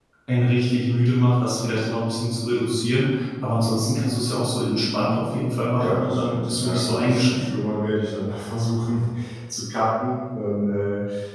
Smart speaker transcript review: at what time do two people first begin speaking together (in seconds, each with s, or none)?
5.8 s